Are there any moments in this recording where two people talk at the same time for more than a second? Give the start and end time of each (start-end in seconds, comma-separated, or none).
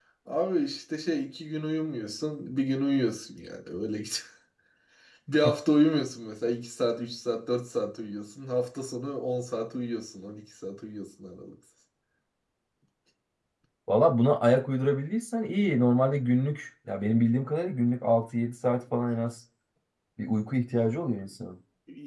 none